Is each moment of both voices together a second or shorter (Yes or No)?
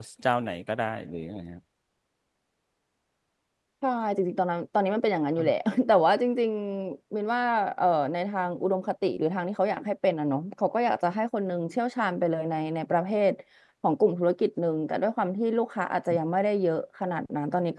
Yes